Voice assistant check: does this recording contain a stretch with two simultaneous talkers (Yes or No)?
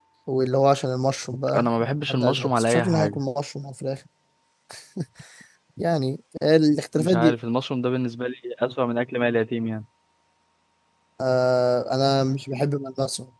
Yes